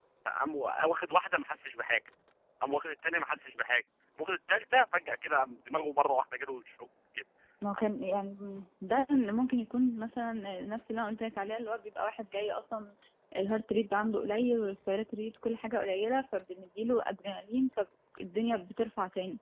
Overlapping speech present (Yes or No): No